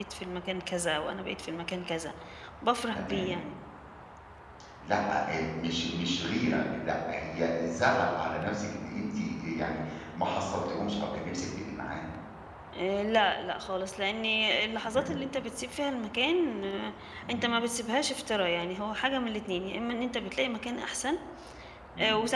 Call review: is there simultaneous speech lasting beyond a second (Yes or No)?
No